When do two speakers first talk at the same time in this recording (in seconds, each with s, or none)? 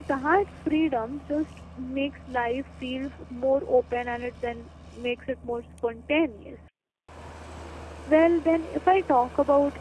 none